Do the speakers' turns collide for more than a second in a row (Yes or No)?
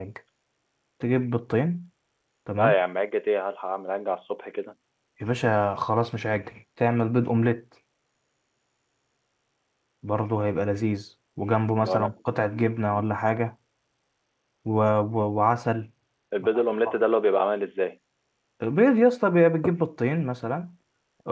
No